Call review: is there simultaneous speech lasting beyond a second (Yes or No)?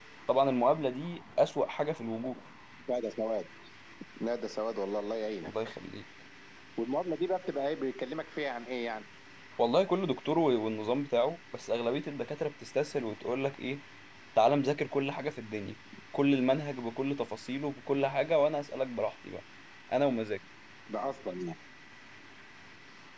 No